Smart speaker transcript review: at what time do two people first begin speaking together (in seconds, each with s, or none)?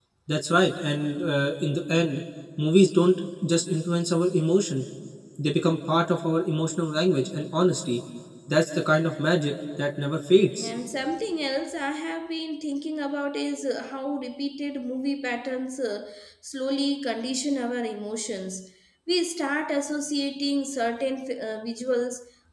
none